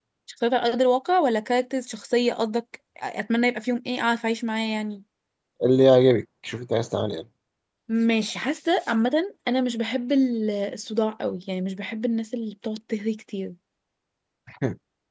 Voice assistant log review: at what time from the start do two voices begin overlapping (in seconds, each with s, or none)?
none